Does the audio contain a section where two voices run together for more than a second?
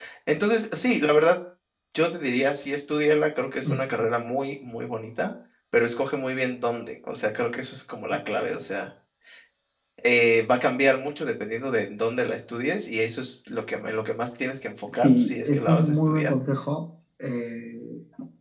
Yes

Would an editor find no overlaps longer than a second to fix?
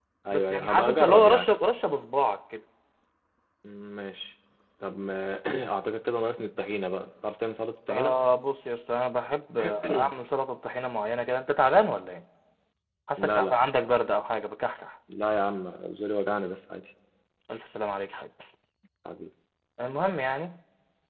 No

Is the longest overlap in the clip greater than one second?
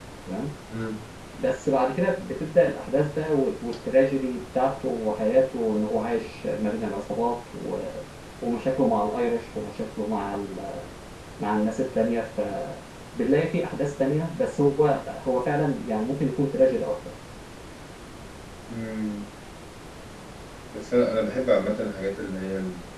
No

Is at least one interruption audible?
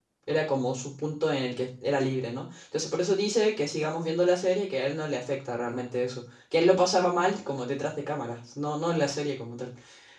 No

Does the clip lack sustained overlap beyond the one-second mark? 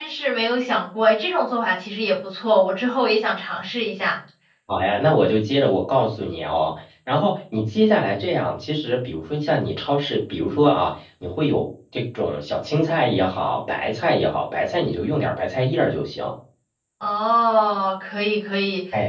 Yes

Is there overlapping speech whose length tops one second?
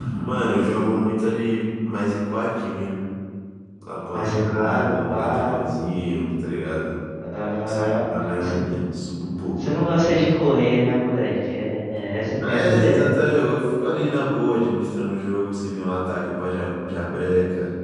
Yes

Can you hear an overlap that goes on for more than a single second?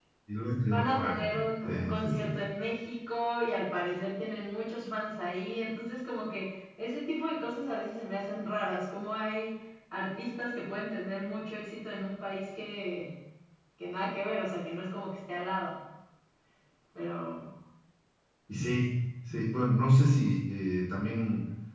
Yes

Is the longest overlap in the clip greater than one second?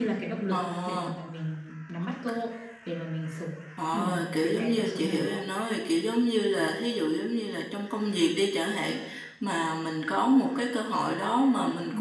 Yes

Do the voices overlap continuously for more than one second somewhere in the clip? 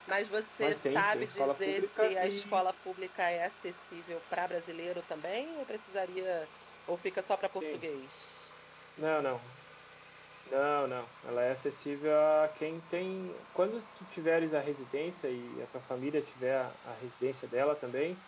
Yes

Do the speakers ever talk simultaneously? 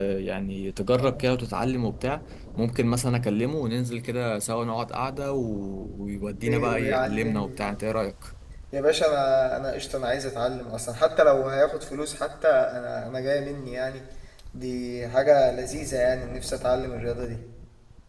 Yes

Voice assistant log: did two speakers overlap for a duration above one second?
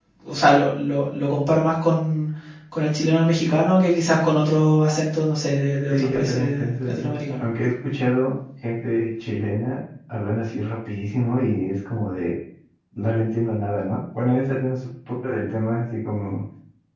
Yes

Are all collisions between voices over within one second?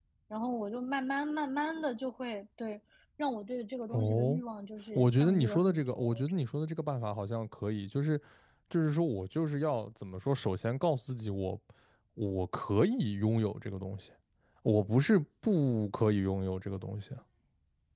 No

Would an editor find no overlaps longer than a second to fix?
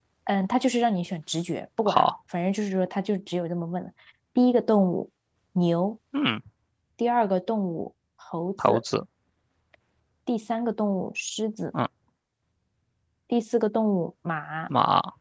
Yes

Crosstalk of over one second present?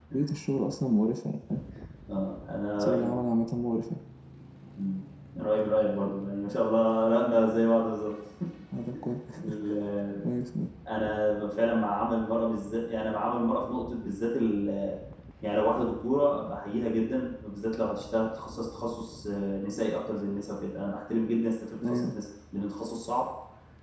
No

